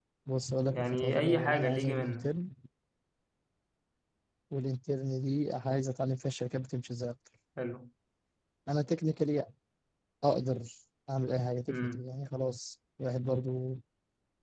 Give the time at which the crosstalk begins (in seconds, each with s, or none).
0.7 s